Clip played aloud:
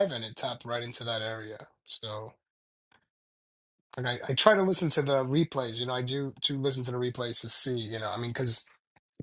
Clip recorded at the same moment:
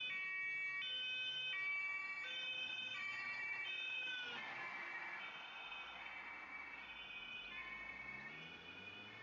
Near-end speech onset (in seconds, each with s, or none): none